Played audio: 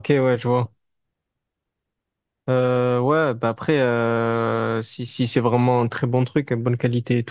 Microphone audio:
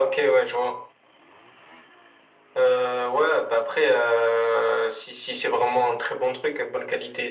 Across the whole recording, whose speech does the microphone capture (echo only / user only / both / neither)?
echo only